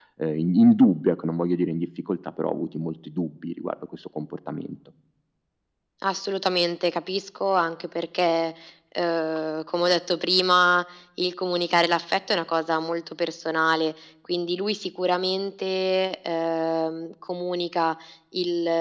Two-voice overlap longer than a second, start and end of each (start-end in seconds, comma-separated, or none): none